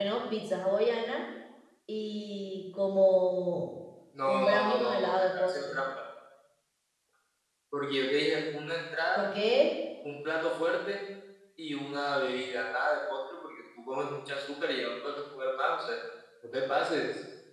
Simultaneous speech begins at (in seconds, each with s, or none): 4.2 s